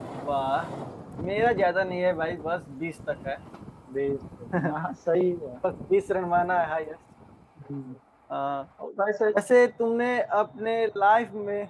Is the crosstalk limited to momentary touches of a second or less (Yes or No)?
Yes